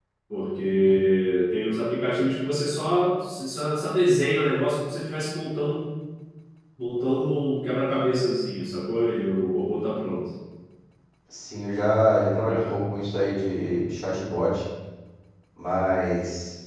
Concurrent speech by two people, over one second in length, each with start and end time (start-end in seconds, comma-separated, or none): none